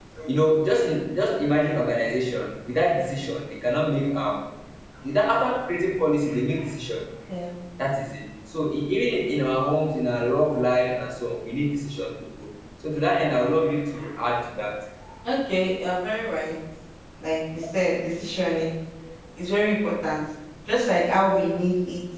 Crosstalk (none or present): none